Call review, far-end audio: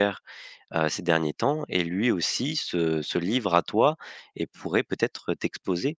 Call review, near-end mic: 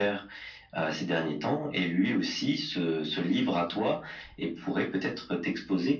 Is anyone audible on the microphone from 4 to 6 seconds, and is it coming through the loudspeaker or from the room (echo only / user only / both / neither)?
echo only